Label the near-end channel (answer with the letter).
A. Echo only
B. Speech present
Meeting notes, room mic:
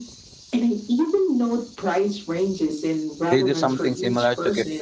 B